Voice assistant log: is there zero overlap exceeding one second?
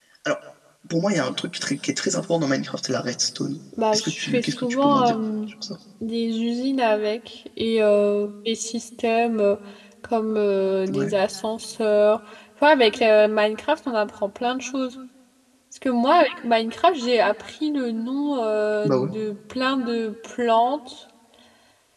No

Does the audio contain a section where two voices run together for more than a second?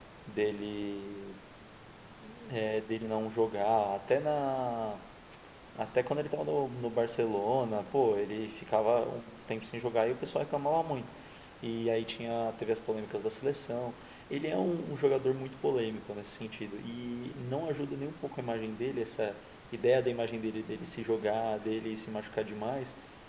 No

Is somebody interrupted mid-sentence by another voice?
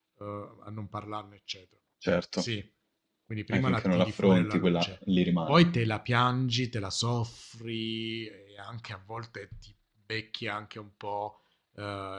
Yes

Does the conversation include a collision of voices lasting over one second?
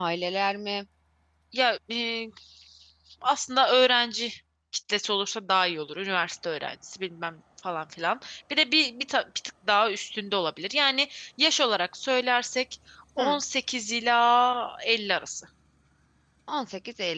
No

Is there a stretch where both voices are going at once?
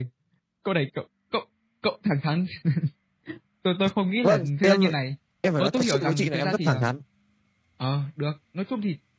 Yes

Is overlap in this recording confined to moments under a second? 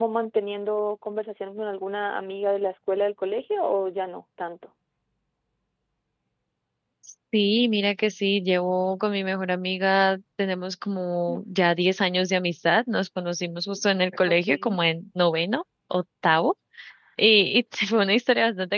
Yes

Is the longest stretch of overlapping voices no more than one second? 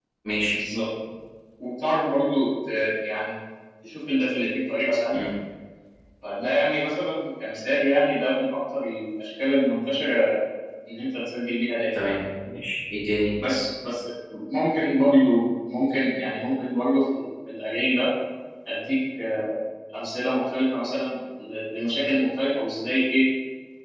Yes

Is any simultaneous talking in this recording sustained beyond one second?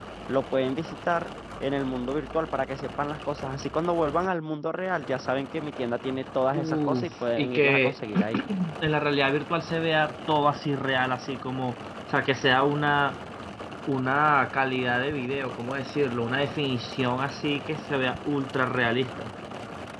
Yes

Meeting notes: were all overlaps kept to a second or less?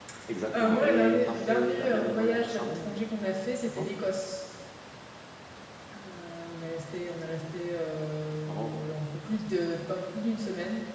No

